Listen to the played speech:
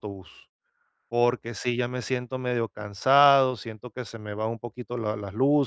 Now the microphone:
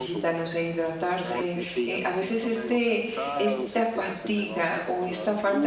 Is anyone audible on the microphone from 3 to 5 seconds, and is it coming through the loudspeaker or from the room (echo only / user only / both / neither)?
both